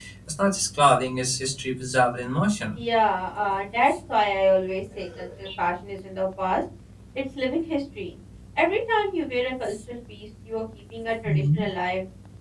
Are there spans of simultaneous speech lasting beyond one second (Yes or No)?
No